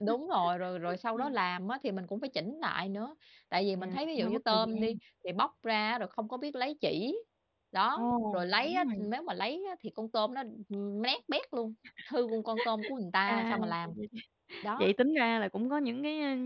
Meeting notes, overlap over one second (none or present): present